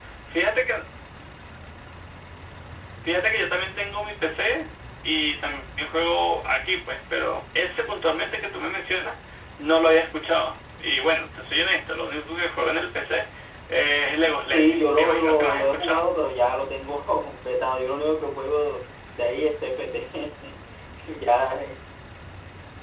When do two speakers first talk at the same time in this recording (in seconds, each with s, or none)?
14.2 s